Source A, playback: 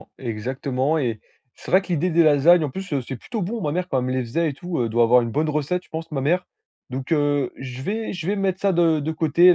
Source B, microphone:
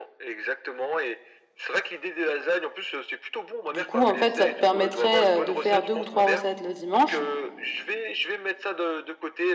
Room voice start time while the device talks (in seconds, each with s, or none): 3.7 s